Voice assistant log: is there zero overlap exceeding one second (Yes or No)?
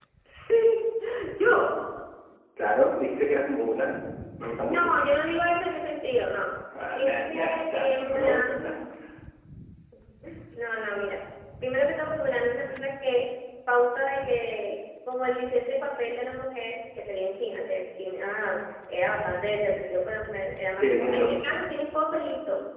No